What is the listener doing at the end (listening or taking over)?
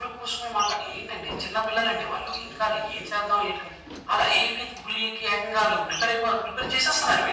taking over